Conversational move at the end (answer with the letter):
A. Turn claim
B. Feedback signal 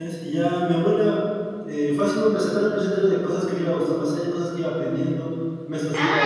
A